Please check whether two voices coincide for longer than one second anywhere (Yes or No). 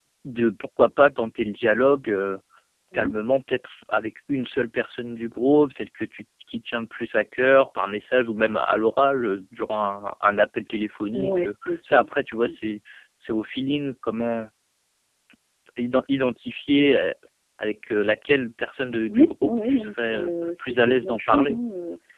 Yes